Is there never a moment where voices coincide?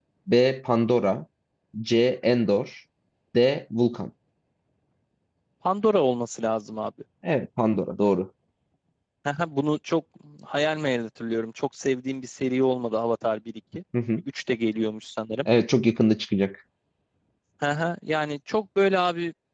Yes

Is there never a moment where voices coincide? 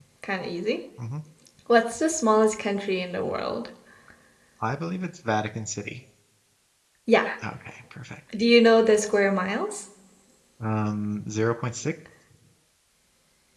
Yes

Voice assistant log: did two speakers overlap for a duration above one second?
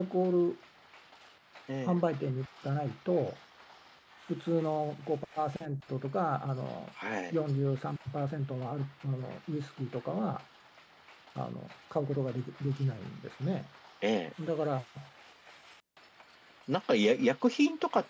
No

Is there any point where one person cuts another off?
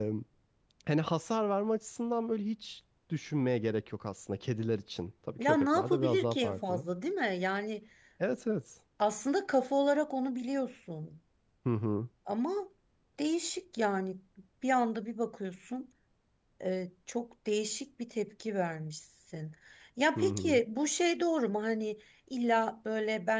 Yes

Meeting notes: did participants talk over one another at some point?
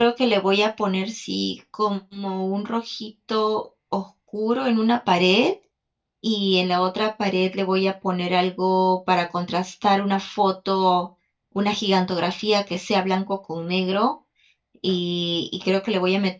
No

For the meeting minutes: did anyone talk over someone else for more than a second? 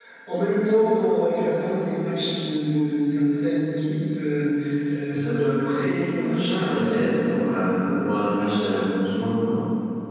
Yes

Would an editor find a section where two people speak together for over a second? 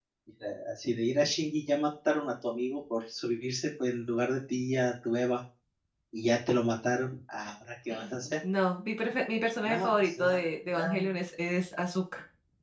Yes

